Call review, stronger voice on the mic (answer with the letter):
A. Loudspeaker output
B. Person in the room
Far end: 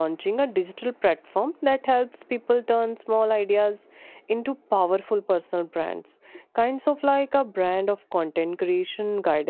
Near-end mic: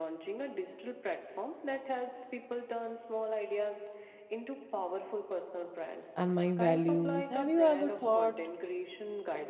B